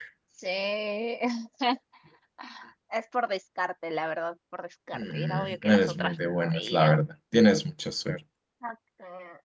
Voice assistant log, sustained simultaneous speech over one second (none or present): present